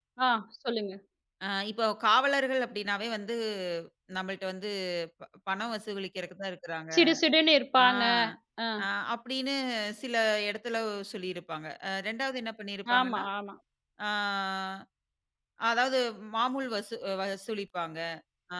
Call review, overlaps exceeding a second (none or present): none